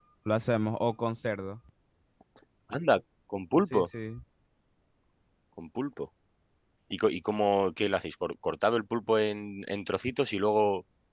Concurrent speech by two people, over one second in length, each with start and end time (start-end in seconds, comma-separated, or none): none